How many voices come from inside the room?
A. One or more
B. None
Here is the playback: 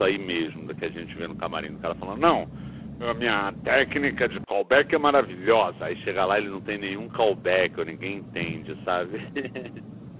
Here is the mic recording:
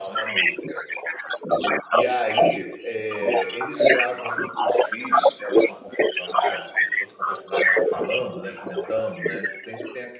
A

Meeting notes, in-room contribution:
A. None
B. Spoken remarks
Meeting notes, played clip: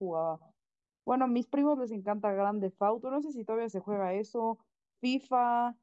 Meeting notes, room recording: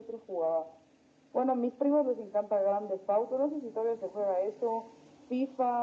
A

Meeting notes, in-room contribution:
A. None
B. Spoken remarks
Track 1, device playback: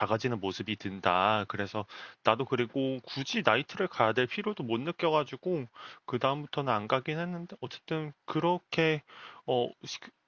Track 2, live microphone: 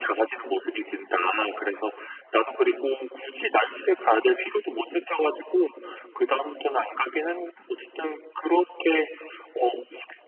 A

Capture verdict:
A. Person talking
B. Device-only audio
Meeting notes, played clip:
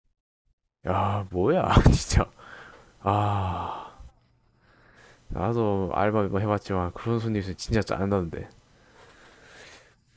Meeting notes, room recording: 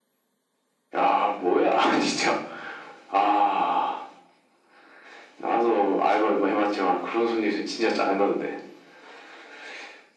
B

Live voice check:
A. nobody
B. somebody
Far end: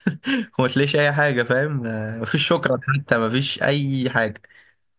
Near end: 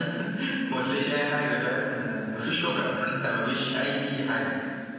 A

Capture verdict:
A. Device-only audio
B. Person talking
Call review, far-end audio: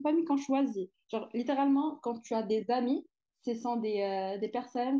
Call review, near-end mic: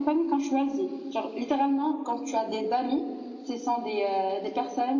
A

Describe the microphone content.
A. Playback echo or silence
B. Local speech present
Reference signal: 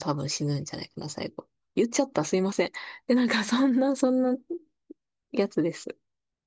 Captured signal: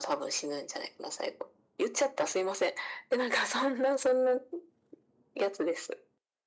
A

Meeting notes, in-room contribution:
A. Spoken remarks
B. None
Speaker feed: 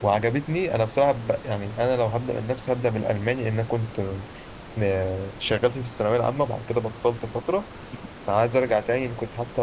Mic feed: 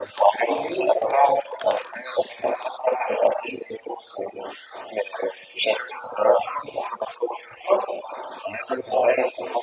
B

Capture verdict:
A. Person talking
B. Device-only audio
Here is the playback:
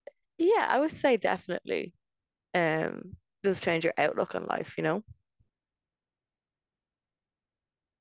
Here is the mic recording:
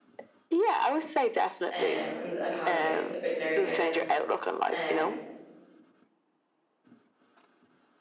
A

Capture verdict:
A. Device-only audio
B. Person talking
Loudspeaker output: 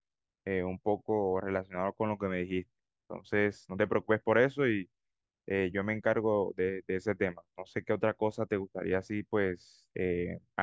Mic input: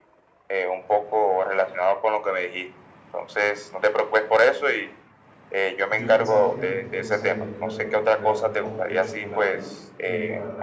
B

